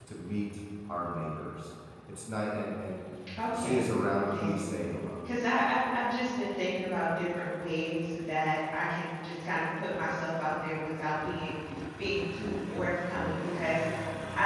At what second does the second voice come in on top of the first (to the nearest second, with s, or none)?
3 s